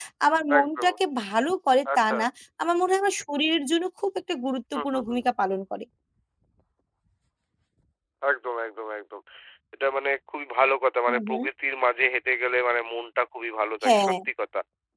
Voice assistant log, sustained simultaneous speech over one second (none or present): none